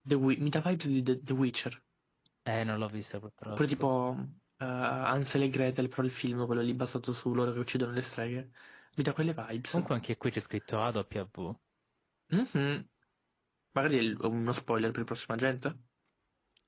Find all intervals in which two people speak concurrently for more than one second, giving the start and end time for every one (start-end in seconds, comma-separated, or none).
none